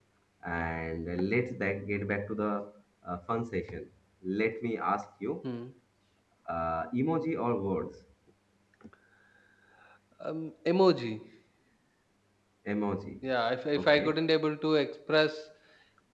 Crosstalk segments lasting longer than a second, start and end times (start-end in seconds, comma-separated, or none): none